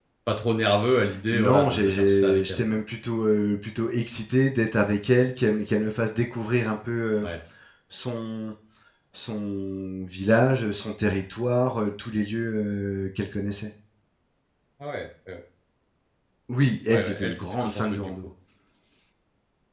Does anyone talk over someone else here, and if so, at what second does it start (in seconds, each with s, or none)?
1.3 s